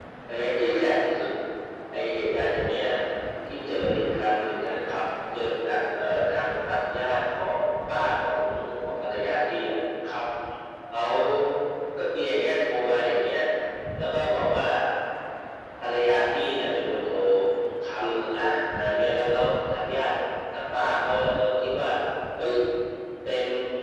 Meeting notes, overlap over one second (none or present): none